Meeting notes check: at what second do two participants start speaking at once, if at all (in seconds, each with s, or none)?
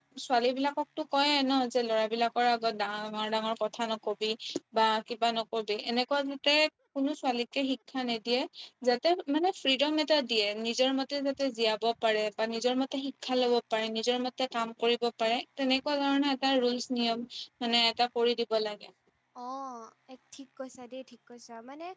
none